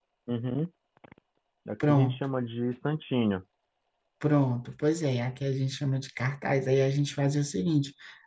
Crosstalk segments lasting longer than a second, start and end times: none

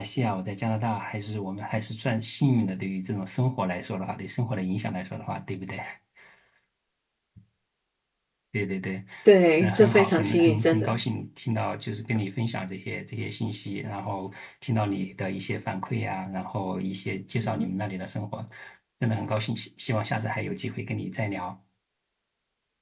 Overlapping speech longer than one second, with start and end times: 9.6-11.0

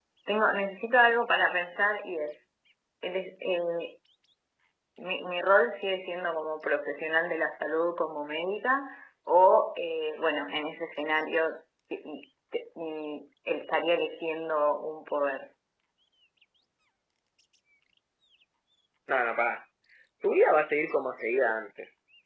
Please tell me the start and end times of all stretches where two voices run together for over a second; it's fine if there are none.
none

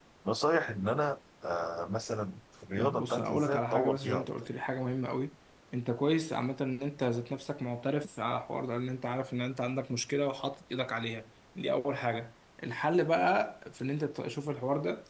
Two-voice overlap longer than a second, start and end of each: 2.8-4.3

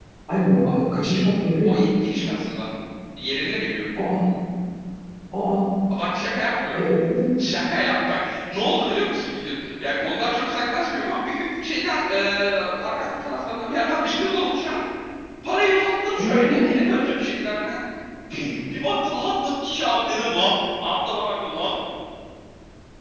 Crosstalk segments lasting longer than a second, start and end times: none

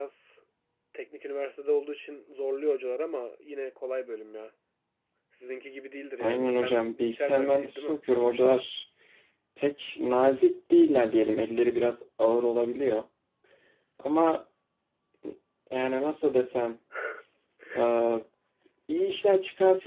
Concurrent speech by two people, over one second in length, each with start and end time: 6.2-8.0

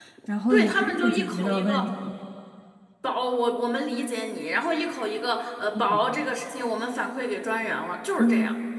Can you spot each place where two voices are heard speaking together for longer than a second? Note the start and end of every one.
0.5-1.9

